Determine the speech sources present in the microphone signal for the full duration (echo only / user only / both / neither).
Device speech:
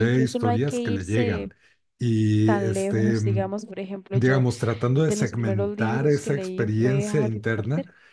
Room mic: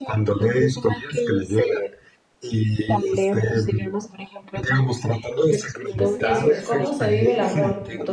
both